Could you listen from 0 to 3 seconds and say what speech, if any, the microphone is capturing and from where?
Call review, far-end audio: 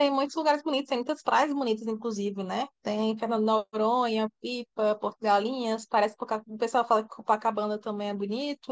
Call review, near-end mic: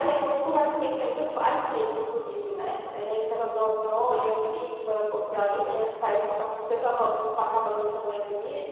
echo only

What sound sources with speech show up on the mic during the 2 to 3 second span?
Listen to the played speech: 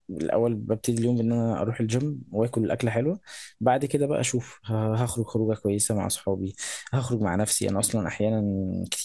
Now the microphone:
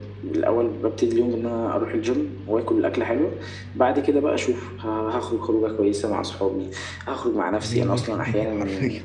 echo only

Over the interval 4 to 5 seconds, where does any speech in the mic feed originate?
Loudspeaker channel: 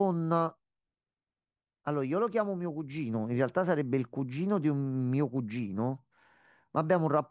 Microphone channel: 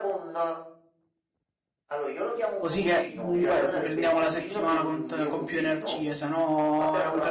both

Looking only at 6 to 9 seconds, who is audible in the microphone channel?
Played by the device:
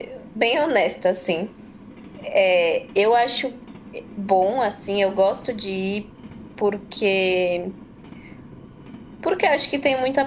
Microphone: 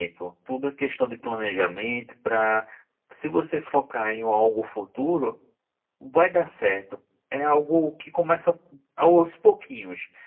user only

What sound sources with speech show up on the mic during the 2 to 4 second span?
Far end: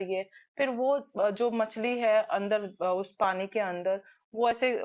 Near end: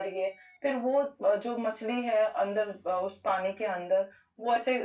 echo only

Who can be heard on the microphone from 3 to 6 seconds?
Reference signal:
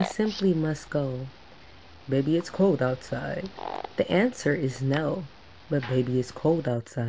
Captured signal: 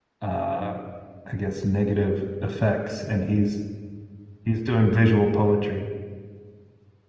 user only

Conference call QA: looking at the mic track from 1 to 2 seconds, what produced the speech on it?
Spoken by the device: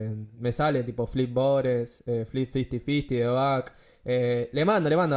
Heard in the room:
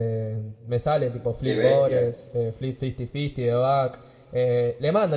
both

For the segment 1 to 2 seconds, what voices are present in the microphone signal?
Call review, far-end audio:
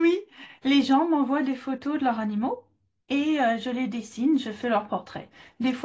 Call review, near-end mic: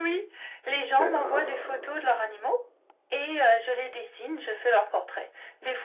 both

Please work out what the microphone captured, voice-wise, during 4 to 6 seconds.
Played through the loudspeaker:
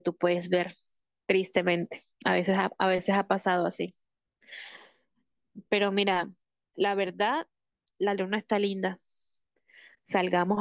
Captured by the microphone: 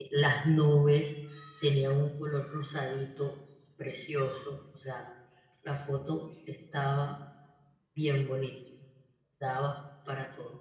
user only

